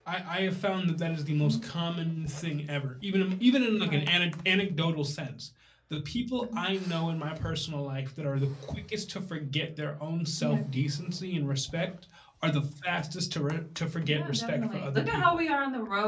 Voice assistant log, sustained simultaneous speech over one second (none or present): present